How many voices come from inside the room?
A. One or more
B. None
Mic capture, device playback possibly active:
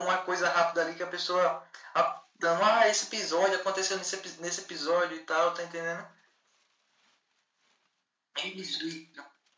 B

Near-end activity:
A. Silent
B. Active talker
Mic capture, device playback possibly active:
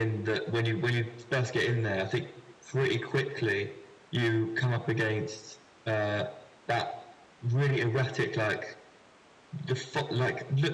A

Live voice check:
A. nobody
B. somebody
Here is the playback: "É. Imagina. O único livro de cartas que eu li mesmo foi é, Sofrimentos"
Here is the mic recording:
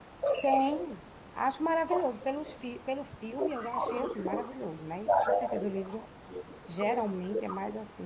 B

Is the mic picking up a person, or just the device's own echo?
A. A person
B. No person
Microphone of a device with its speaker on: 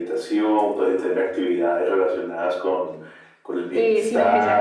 A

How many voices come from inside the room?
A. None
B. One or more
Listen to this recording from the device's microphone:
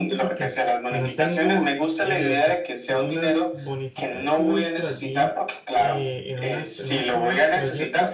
B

